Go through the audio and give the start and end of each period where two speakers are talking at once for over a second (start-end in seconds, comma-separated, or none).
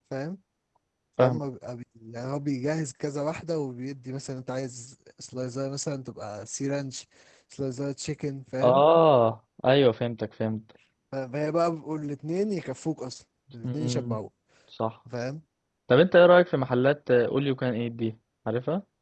none